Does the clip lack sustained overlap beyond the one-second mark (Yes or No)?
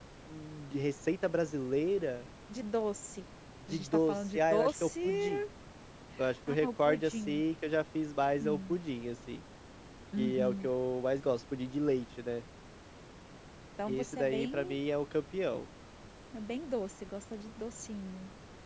No